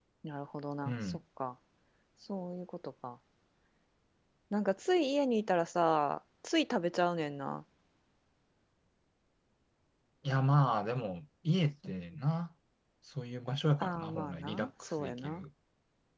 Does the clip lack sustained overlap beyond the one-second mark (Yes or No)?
No